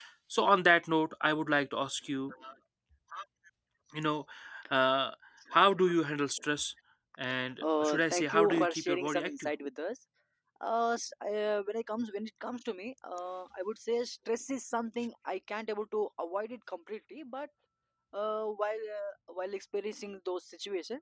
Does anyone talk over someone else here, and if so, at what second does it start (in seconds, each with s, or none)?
7.6 s